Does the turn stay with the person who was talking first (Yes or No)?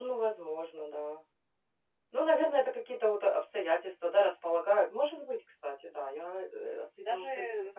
No